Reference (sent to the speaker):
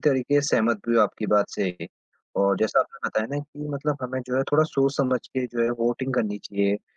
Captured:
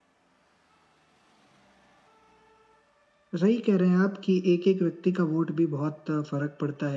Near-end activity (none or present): present